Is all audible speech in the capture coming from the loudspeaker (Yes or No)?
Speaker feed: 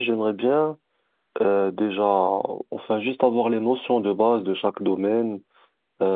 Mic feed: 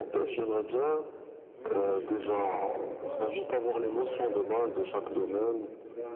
No